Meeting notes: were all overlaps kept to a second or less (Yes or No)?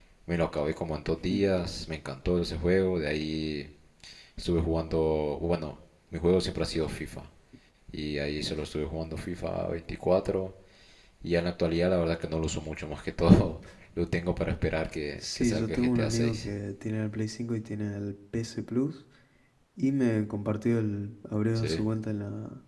No